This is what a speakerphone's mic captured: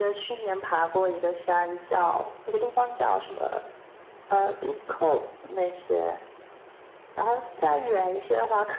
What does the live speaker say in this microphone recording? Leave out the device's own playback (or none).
none